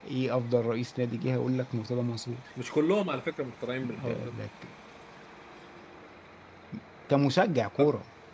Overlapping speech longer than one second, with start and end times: none

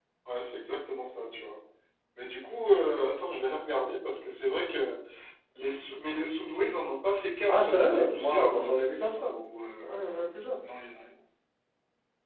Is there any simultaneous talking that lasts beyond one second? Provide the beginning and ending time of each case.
7.5-8.7

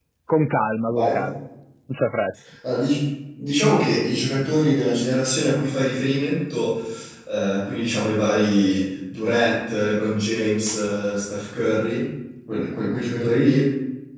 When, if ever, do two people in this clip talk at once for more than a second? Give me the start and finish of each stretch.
none

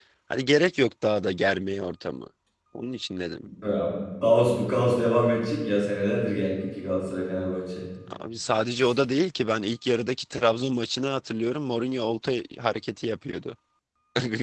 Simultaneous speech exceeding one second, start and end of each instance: none

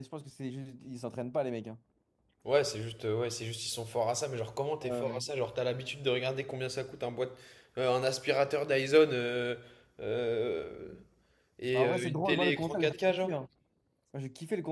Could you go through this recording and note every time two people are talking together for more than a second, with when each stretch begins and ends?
11.7-13.3

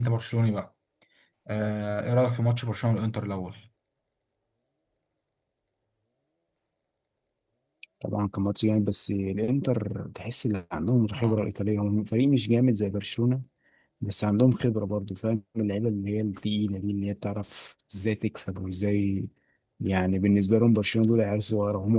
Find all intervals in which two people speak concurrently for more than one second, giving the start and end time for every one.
none

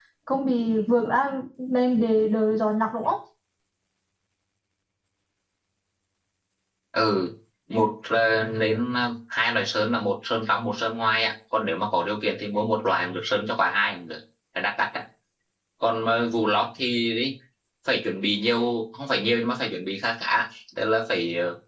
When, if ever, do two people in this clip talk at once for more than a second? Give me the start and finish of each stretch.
none

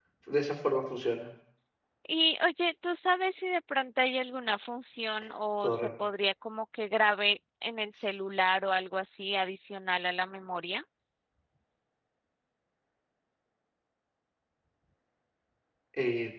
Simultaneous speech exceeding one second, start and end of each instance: none

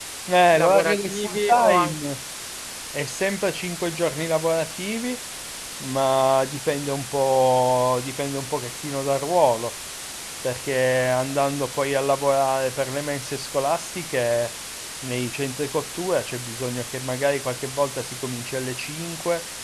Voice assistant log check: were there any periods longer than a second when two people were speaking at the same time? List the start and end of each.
0.5-1.9

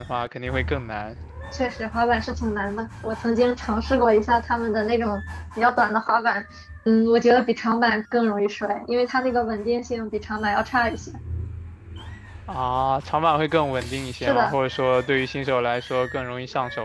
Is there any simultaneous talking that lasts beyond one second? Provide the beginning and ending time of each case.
none

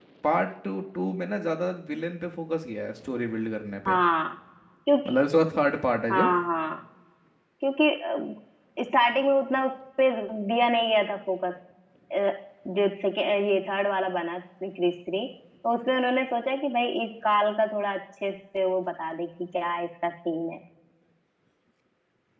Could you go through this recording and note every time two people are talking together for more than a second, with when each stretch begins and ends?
none

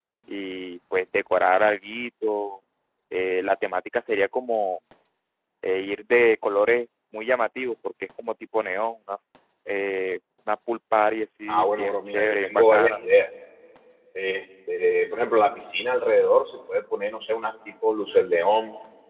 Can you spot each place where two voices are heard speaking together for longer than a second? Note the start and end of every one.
11.5-13.0

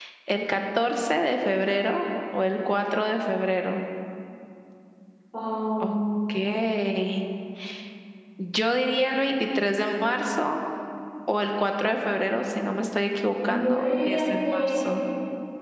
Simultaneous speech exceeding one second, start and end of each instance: 13.5-14.8

